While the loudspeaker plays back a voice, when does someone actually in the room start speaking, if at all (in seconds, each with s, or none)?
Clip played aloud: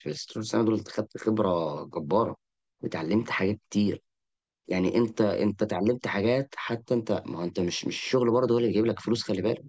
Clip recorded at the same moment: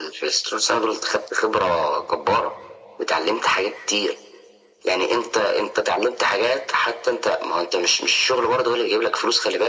none